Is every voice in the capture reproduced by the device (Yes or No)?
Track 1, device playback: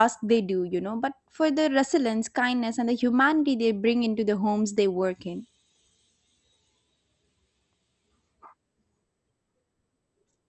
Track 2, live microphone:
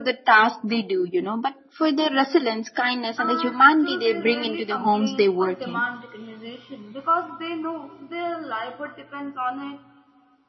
No